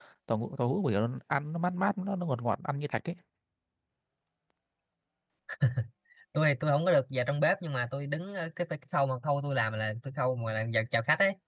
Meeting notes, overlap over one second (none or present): none